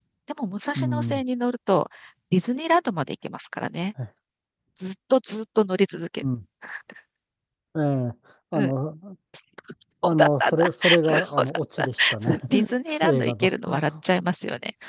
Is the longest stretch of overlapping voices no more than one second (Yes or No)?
No